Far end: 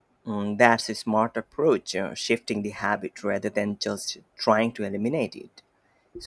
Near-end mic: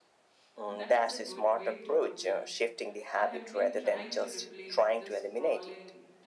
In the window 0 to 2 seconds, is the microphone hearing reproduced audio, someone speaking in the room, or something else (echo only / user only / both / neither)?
both